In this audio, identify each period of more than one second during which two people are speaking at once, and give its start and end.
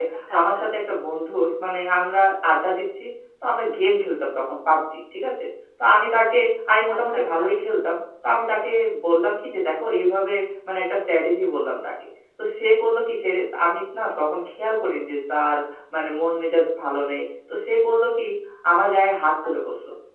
none

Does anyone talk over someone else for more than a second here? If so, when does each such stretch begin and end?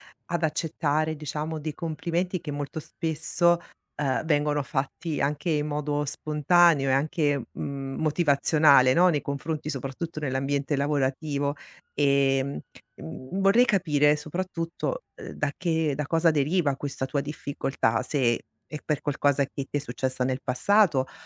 none

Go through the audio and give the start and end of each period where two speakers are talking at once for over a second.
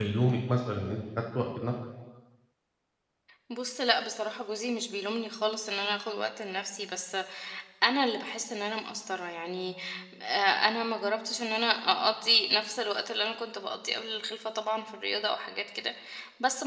none

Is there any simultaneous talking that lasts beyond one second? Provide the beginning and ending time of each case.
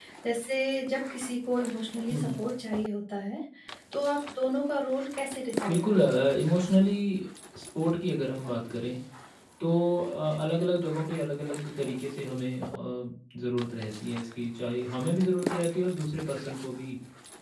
none

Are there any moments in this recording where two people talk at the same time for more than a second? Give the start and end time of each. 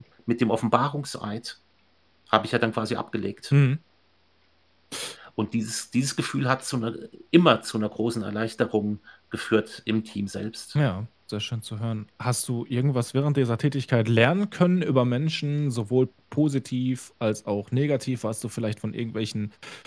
none

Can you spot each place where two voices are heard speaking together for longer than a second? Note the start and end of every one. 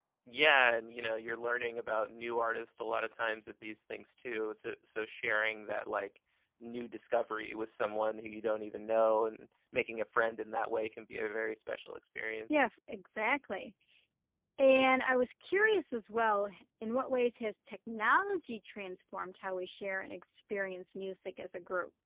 none

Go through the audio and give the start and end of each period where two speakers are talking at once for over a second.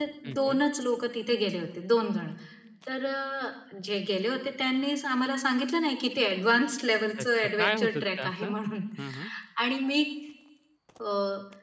7.2-8.5

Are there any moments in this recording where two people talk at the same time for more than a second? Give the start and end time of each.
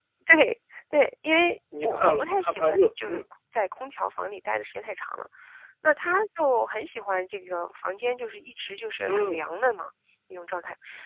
1.8-3.2

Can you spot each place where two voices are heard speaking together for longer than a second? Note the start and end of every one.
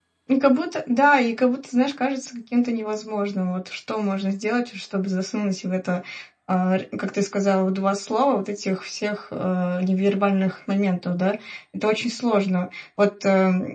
none

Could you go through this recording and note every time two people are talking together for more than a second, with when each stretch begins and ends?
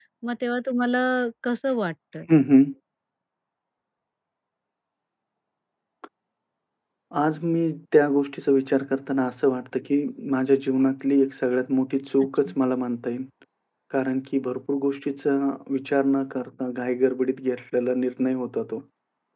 none

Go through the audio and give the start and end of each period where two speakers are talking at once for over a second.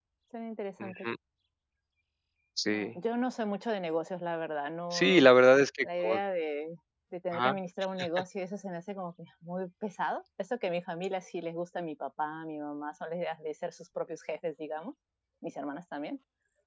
none

